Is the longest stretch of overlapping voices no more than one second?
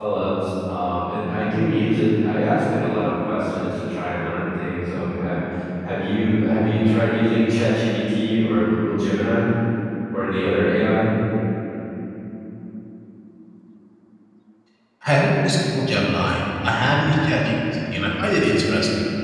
Yes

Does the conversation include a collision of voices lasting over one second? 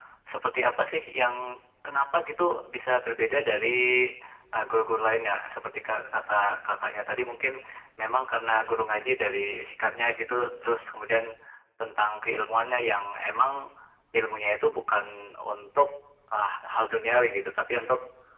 No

